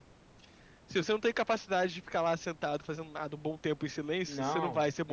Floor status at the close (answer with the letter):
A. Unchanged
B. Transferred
B